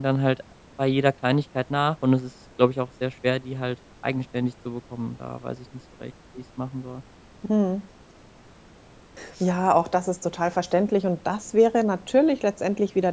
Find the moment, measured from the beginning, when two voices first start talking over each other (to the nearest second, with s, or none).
none